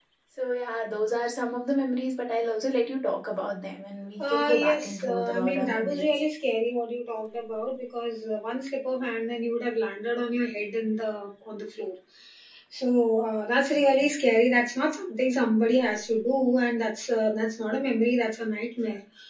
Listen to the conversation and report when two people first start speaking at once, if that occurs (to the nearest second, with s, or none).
4 s